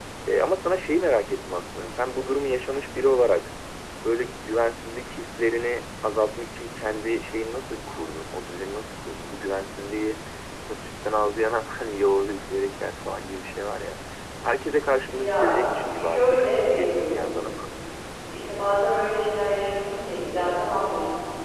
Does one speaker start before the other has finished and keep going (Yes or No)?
Yes